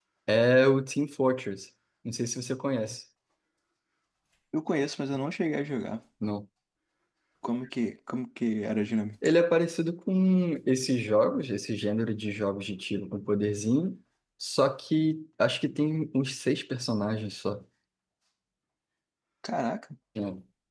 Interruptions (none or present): none